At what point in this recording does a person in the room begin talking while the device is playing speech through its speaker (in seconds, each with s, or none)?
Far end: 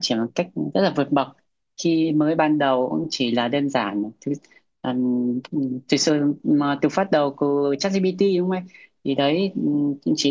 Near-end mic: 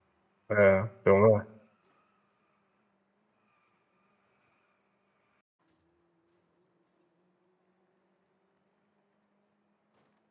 0.5 s